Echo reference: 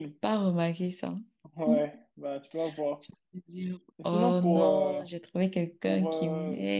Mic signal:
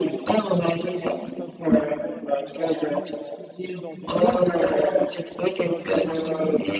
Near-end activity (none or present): present